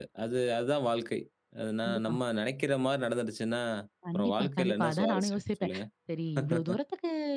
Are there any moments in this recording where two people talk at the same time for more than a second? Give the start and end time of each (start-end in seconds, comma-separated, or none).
4.1-5.7